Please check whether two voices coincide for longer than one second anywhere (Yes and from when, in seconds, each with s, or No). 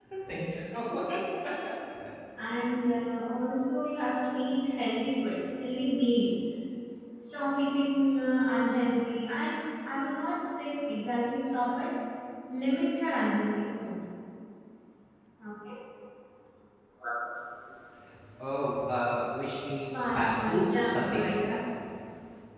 Yes, from 19.9 s